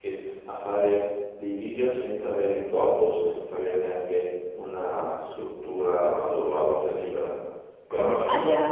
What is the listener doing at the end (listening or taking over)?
taking over